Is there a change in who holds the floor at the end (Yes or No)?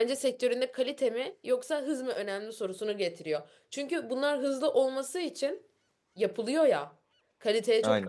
No